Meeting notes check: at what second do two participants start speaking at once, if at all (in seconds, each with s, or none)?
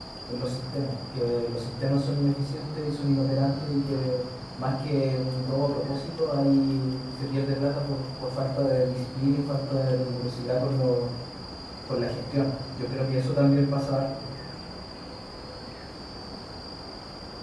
none